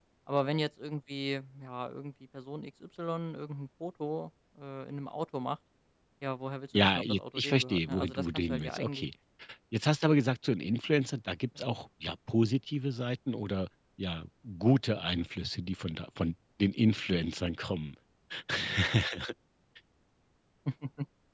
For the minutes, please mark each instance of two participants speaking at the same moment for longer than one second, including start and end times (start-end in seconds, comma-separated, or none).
6.7-9.0